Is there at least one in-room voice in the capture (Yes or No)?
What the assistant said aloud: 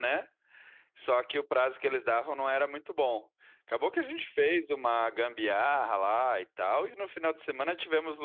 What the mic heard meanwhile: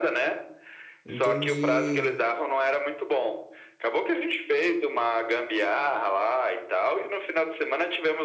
Yes